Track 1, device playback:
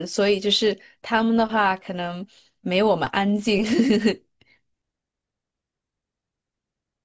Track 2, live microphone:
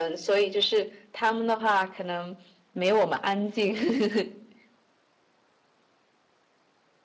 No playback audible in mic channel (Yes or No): No